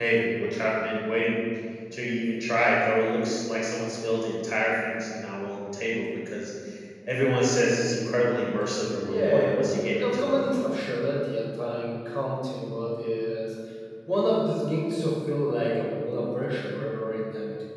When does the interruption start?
9.0 s

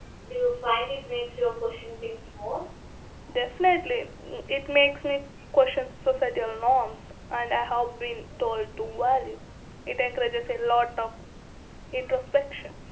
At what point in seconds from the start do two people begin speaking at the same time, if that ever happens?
none

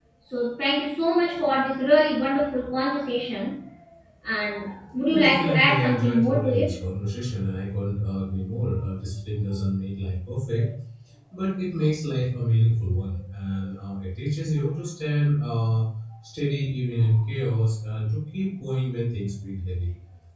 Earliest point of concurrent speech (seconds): 5.1 s

